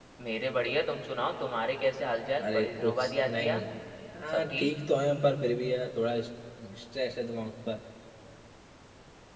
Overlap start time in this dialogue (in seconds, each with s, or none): 2.4 s